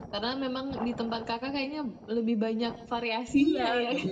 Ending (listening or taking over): taking over